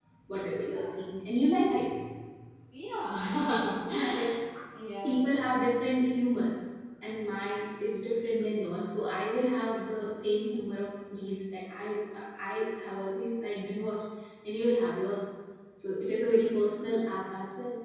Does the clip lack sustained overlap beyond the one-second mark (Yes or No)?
Yes